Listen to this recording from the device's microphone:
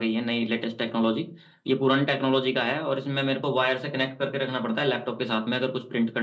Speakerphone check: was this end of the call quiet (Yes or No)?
Yes